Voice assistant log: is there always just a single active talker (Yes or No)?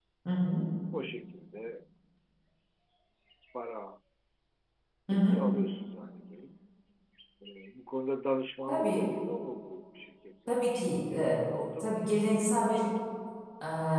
No